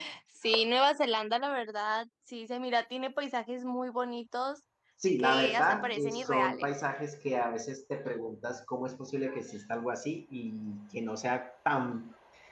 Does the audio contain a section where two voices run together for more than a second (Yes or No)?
Yes